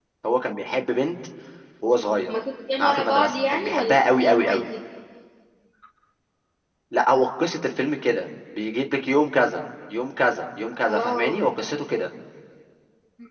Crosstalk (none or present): present